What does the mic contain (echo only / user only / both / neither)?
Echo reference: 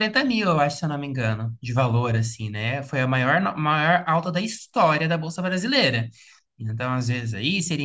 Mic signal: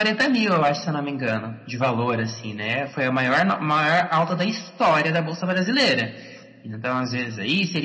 echo only